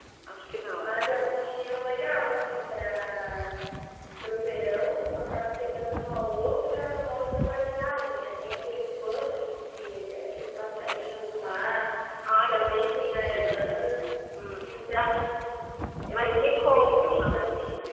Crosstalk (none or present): present